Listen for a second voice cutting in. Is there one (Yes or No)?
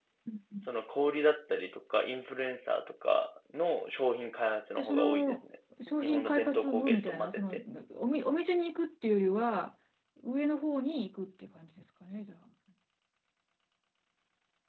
Yes